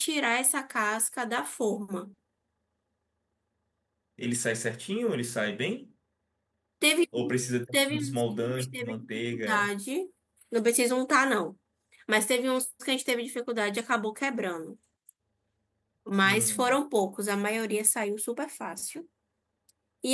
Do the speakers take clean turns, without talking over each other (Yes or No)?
No